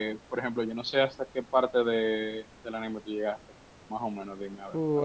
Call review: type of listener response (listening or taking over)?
taking over